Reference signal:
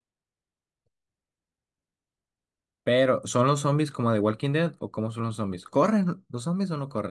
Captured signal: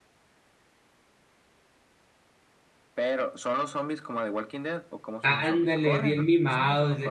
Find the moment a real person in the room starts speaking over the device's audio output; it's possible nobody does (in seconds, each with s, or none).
5.2 s